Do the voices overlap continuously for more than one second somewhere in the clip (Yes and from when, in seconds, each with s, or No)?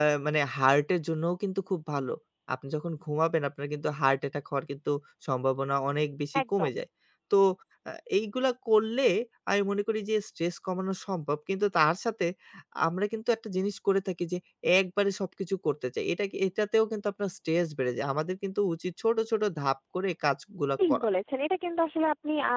No